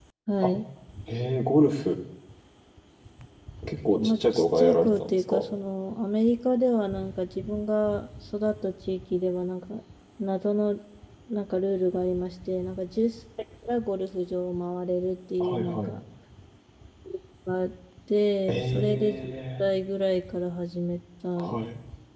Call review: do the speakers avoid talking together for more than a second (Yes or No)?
No